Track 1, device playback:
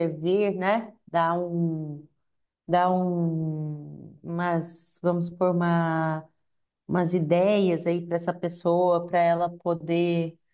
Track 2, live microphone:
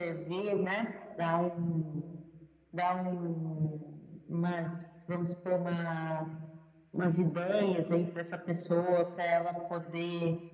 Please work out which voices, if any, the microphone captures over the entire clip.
echo only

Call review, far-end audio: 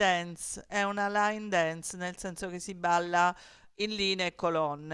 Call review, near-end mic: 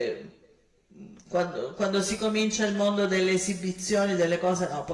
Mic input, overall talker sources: user only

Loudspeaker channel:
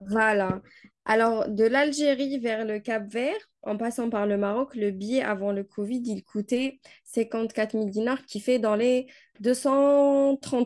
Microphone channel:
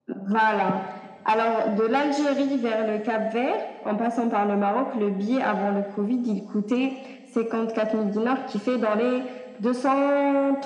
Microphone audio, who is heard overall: echo only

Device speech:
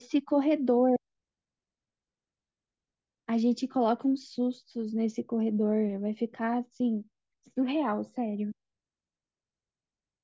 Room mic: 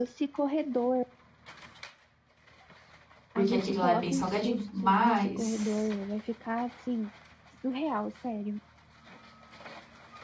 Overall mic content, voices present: both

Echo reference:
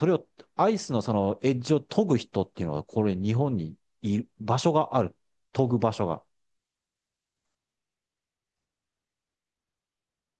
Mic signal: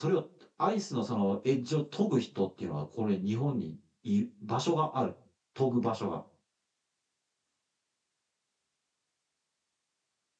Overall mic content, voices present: echo only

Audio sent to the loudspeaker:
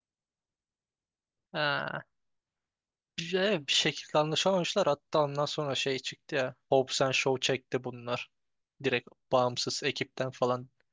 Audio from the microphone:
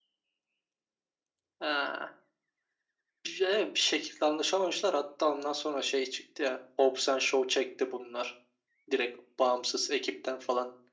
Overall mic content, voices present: echo only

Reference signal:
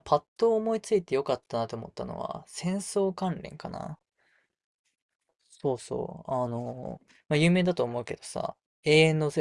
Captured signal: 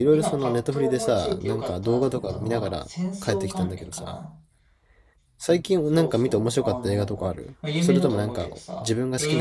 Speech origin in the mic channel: both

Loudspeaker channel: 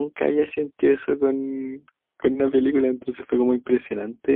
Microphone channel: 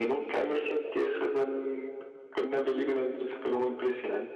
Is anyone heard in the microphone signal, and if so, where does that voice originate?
echo only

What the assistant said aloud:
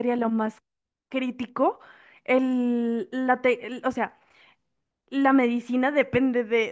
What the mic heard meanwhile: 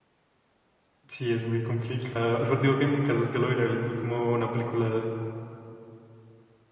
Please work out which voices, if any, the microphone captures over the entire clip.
user only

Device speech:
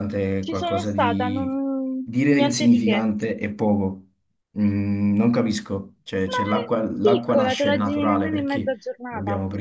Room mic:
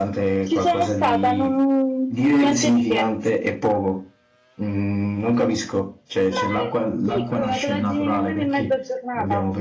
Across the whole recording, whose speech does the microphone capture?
echo only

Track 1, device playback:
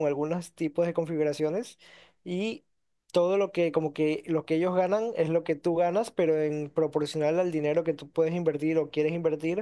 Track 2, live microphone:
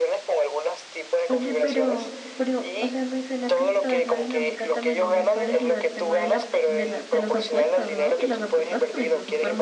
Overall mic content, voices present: both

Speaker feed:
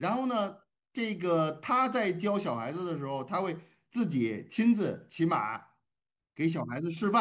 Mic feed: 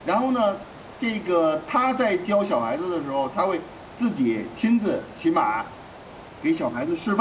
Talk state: echo only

